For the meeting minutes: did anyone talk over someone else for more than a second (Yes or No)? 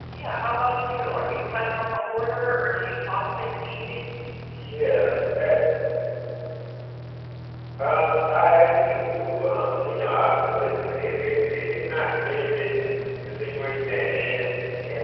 No